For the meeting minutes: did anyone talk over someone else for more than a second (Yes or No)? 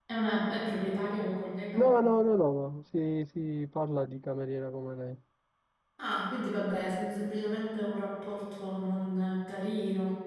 No